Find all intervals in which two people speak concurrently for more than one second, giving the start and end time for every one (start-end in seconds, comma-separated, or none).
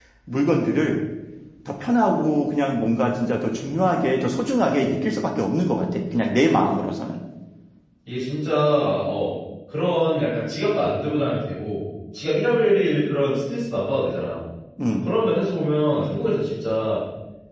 none